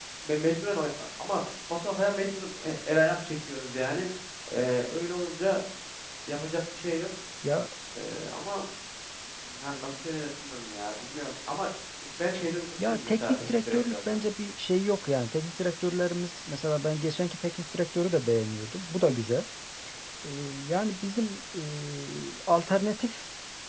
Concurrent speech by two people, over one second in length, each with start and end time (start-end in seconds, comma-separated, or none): 12.9-14.2